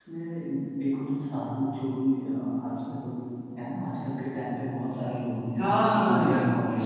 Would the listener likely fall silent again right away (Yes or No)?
No